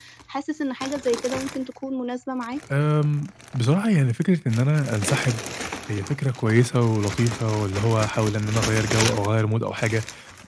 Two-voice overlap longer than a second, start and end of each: none

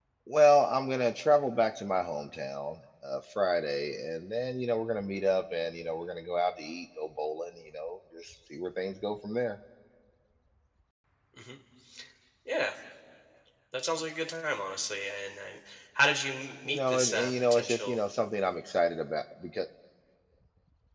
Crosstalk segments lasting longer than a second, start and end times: 16.6-18.0

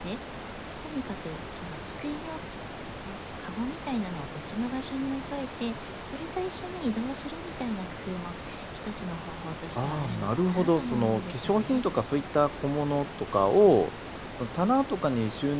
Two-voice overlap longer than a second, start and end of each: 9.8-11.8

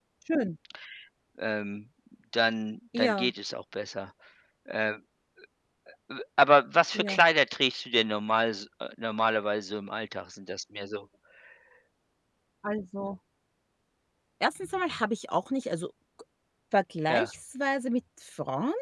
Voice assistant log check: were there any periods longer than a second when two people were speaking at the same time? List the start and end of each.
none

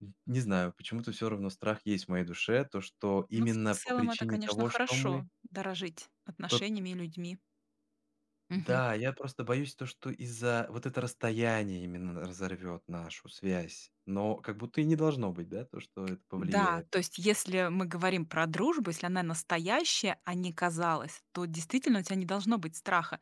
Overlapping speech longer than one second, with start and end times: 3.4-5.2

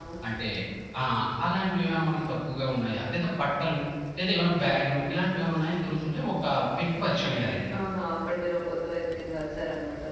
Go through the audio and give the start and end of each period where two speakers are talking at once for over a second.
none

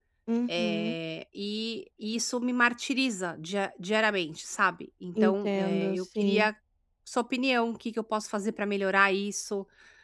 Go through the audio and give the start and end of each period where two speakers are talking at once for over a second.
5.2-6.5

